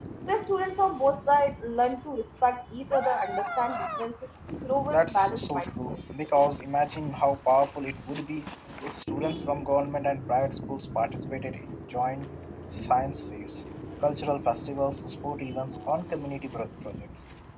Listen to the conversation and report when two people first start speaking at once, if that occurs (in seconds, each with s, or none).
4.9 s